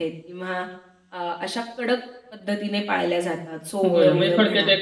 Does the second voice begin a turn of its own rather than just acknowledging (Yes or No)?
Yes